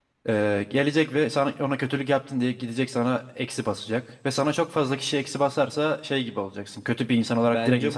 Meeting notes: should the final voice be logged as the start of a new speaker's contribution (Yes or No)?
Yes